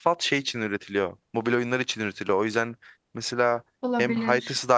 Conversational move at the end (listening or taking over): listening